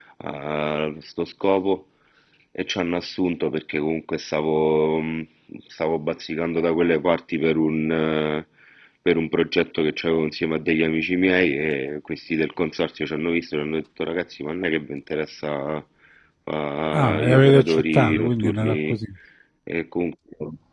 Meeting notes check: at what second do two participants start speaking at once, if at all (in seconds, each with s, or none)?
16.9 s